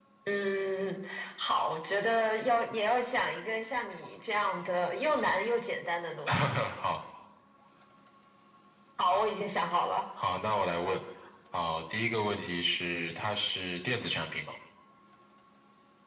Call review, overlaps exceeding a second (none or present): none